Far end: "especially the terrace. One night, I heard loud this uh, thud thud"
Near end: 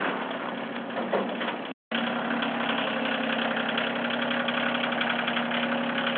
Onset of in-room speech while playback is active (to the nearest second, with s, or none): none